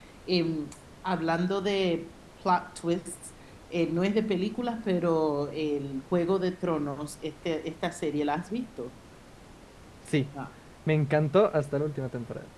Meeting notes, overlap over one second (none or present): none